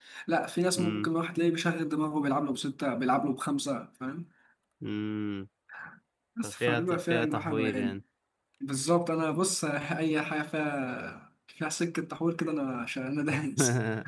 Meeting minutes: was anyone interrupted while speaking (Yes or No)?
Yes